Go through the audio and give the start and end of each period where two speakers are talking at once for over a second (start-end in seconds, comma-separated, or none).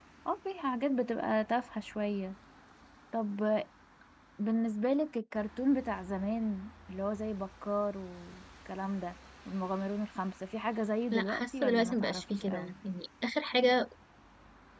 11.1-12.8